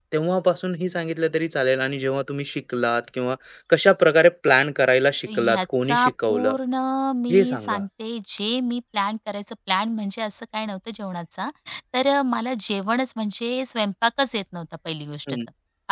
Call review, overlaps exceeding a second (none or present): present